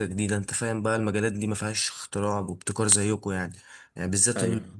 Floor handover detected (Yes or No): No